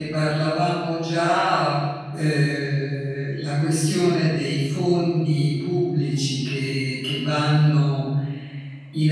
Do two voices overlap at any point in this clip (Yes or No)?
No